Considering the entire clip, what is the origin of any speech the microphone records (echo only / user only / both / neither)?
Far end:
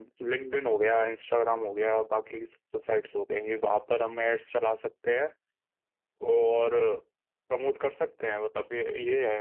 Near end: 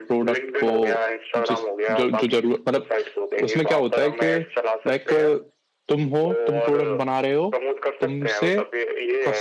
both